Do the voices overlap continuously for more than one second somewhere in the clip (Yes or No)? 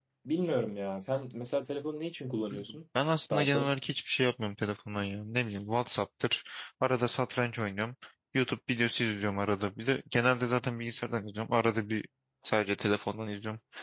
No